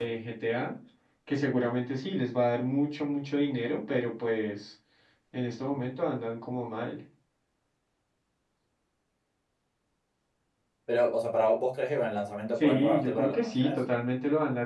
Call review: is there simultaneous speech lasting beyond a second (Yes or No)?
Yes